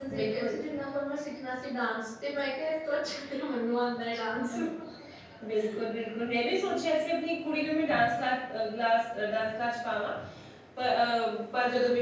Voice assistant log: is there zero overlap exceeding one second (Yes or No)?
Yes